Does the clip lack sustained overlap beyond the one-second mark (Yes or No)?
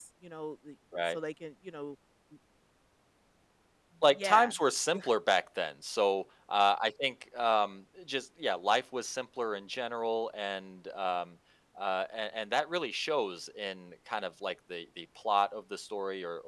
Yes